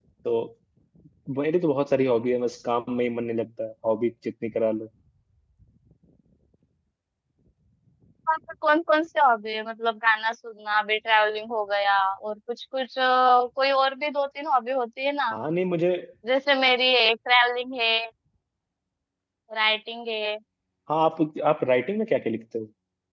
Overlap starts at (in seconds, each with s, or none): none